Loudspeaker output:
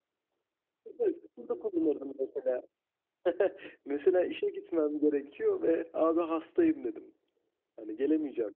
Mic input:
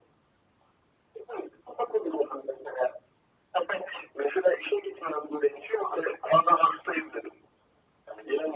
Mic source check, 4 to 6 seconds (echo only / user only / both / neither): echo only